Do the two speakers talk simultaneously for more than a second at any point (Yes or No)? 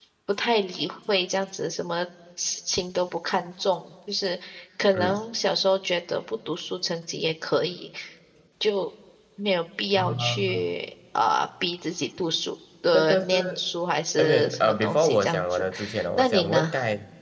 Yes